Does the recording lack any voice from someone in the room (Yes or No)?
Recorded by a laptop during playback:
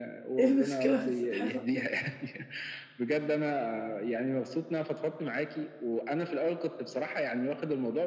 No